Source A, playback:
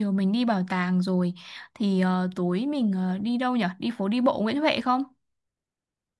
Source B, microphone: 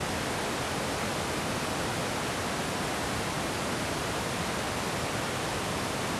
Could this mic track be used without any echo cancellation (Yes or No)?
Yes